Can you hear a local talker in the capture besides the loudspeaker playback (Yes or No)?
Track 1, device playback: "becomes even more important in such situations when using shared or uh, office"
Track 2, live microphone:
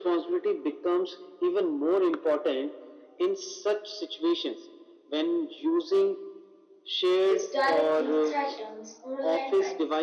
Yes